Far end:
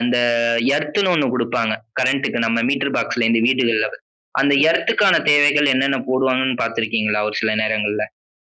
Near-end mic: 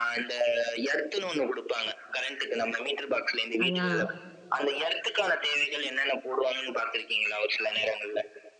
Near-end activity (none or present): present